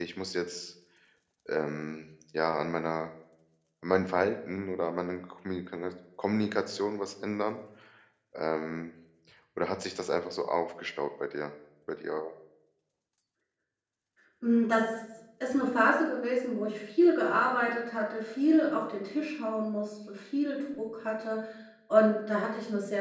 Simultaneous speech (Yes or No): No